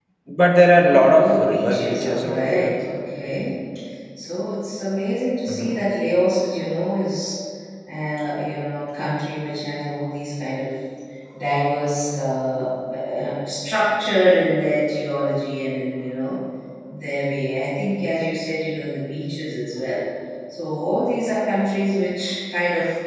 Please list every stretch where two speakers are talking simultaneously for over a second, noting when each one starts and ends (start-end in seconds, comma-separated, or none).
0.8-2.8